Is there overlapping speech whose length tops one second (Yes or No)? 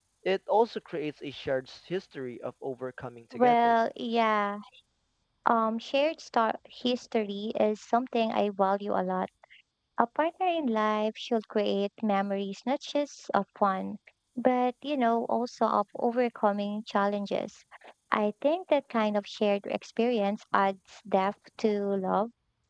No